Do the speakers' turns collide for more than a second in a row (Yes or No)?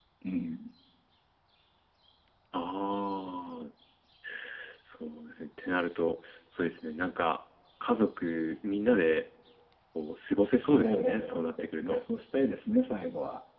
Yes